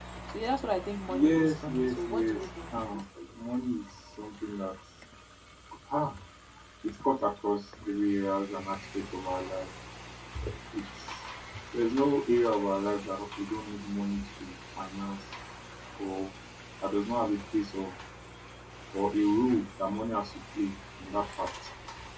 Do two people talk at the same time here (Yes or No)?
Yes